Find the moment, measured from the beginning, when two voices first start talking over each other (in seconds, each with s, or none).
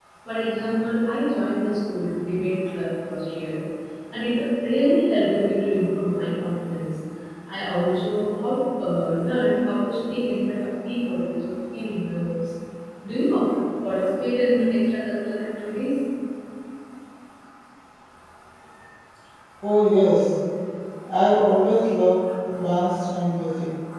none